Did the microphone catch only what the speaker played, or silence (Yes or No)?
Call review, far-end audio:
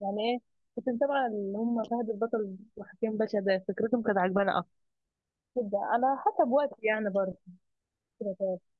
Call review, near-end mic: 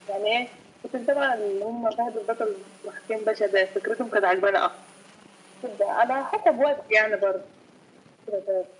Yes